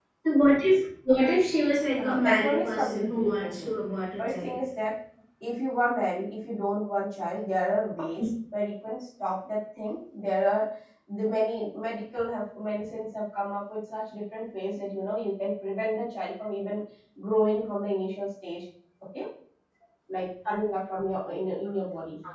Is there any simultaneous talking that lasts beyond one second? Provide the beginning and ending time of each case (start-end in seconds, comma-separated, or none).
2.0-3.7